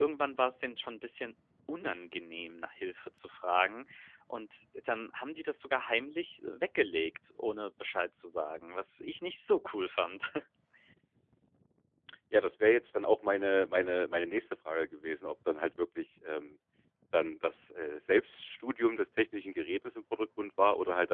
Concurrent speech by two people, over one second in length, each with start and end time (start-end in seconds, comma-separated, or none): none